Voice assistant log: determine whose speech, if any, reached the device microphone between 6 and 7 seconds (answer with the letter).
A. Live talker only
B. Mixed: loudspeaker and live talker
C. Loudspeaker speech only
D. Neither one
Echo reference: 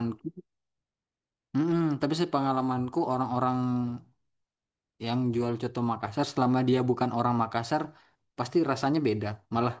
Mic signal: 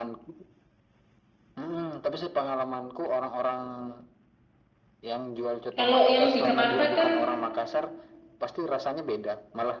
B